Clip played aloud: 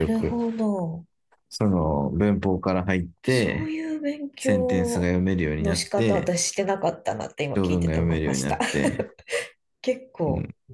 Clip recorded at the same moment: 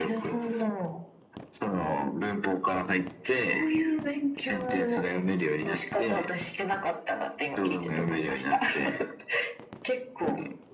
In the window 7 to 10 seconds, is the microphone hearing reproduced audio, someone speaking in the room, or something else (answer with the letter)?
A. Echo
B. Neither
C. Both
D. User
A